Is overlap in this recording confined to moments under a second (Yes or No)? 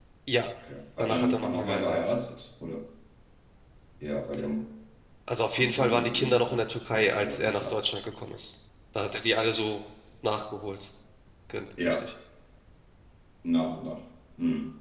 No